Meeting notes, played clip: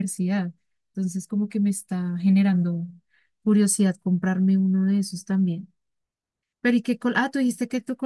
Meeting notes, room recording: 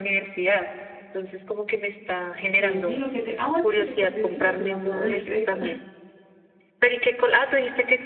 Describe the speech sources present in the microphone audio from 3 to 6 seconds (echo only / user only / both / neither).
both